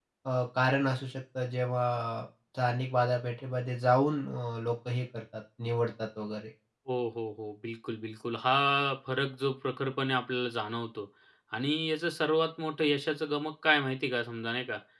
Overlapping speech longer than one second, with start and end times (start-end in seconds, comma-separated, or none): none